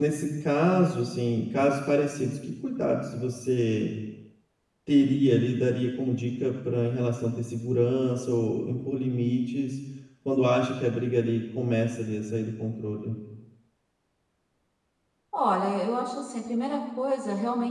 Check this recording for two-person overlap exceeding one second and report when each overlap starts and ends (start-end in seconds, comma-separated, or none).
none